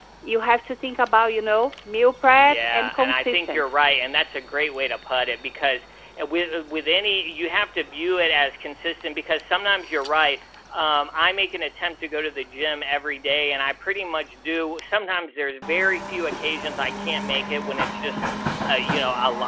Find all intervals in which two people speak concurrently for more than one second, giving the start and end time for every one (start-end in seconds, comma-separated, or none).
2.4-3.8